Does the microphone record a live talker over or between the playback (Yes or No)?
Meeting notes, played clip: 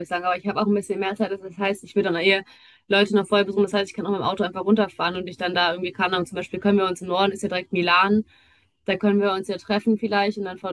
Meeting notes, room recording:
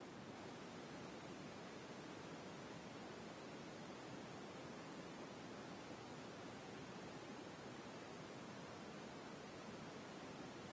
No